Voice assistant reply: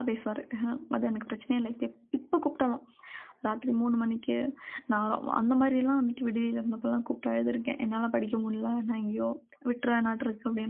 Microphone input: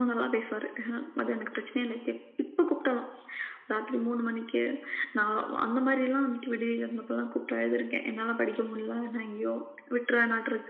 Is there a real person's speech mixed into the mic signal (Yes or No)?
No